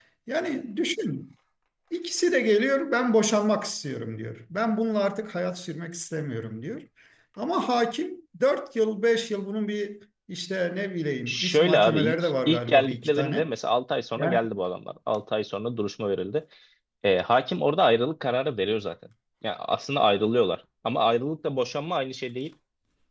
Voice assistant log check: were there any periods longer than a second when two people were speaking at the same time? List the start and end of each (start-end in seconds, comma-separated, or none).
11.3-13.5